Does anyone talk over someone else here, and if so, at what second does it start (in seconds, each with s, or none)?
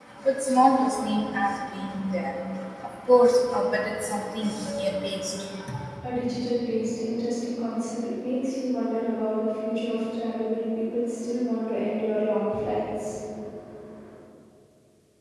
none